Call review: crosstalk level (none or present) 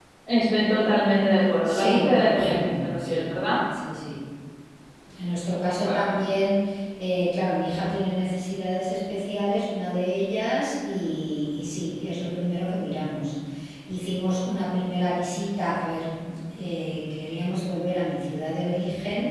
present